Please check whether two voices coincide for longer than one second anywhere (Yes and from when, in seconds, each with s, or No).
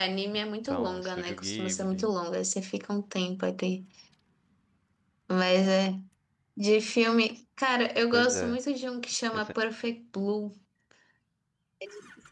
Yes, from 0.6 s